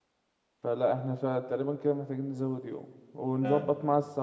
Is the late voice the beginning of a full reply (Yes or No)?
No